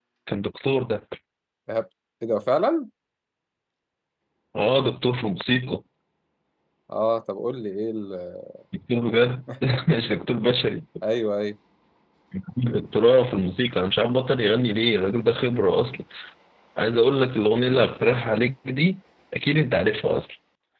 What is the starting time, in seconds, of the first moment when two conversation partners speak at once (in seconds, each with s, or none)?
none